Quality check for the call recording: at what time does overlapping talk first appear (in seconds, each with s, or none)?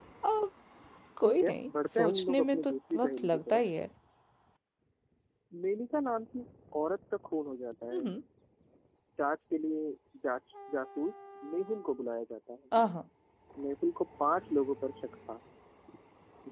1.2 s